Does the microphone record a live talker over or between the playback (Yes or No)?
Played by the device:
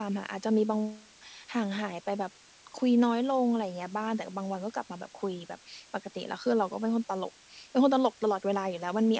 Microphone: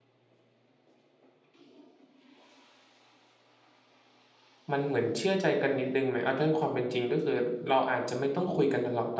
Yes